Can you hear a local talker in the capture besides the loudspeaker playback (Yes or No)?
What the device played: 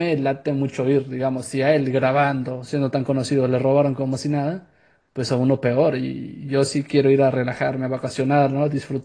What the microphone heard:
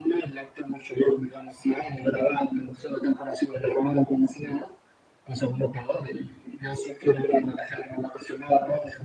No